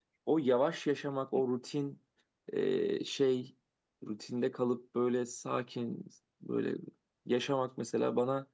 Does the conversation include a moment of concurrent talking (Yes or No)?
No